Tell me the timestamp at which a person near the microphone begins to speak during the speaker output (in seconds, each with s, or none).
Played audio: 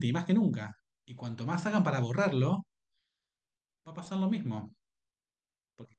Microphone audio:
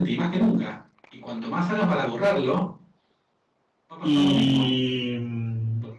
4.0 s